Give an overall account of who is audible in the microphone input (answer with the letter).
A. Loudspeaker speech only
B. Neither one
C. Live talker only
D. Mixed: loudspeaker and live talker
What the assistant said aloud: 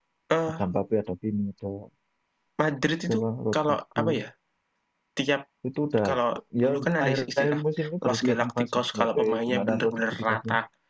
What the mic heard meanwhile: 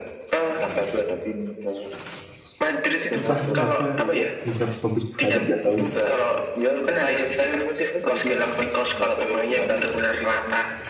D